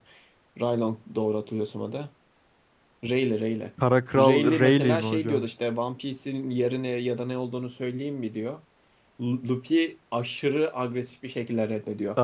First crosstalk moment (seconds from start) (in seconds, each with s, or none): 4.1 s